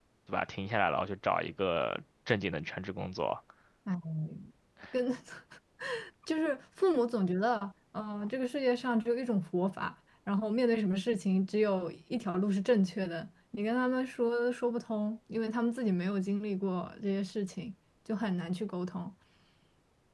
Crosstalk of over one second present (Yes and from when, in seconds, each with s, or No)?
No